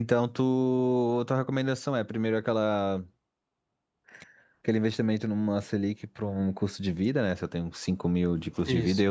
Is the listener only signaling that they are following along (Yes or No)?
Yes